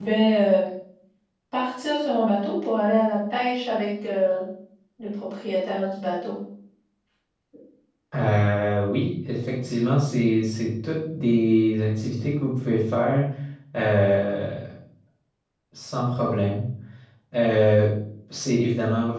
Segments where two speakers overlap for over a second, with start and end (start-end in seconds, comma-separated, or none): none